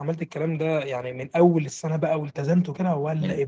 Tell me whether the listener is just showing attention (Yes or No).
No